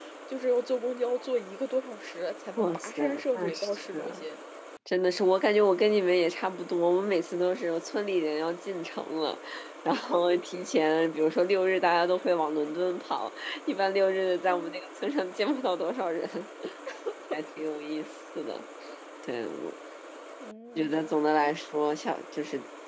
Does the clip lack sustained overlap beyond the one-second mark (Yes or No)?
No